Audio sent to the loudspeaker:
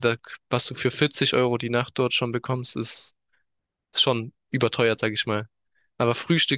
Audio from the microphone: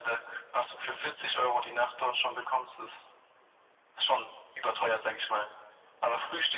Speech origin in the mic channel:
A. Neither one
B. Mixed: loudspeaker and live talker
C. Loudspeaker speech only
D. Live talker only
C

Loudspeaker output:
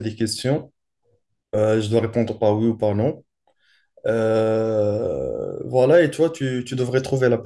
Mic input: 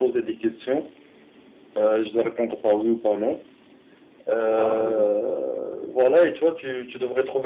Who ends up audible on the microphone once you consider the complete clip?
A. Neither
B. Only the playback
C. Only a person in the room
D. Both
D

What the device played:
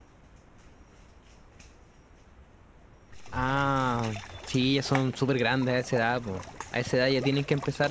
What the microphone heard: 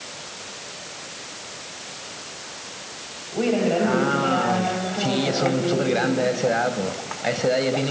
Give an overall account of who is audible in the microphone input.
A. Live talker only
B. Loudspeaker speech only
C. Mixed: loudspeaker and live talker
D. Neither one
C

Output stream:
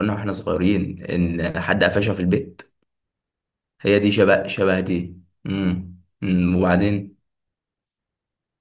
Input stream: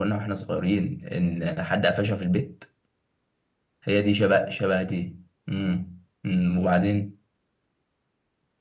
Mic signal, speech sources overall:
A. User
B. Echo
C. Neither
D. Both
B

